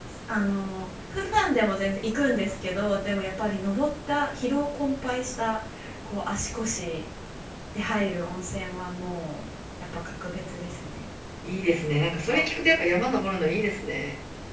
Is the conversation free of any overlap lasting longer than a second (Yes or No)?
Yes